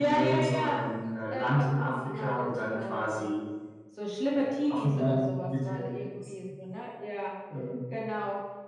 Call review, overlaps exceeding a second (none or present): present